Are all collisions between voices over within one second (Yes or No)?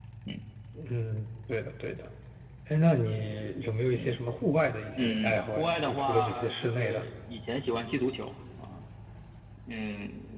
No